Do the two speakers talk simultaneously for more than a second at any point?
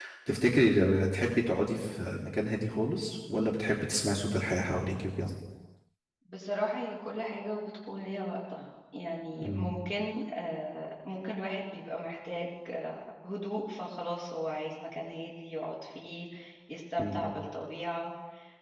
No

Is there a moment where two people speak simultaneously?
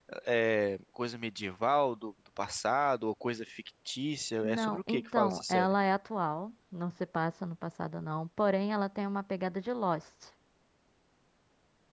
Yes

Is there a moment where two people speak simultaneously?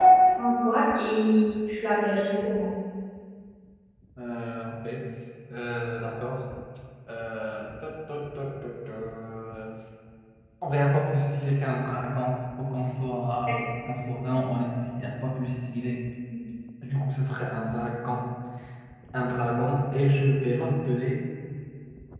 No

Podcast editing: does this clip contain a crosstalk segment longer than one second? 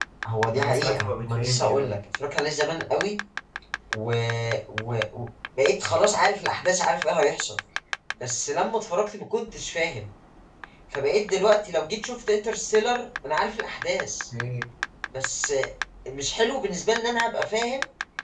Yes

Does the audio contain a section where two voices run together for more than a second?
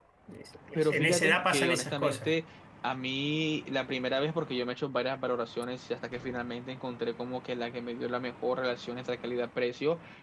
Yes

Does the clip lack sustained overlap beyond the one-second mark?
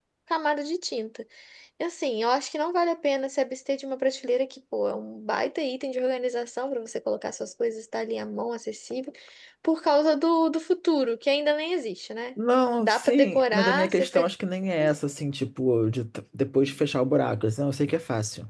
No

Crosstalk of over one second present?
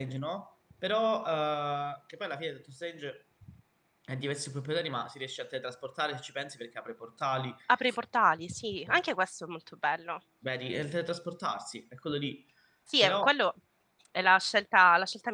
No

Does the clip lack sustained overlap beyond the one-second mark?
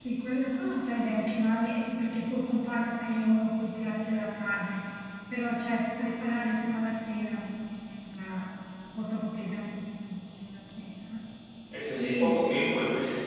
Yes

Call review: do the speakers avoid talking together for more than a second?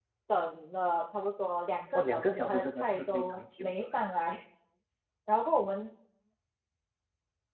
No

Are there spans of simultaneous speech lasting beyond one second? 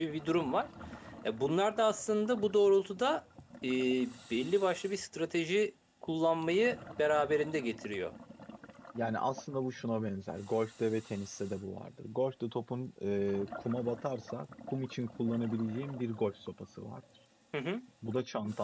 No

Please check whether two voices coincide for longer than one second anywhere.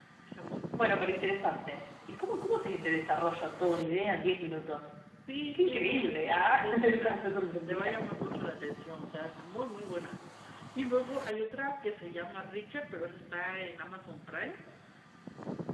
Yes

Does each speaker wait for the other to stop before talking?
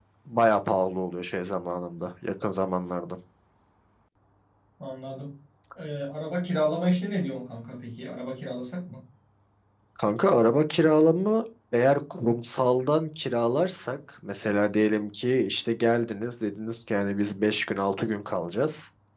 Yes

